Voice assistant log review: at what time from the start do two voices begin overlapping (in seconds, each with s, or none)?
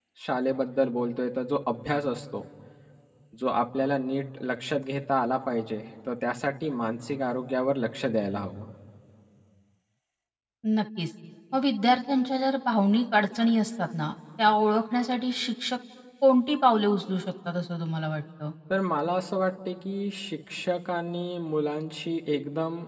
none